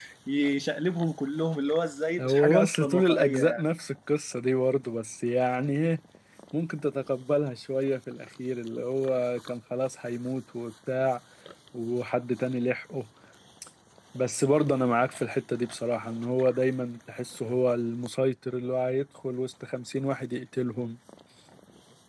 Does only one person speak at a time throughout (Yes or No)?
No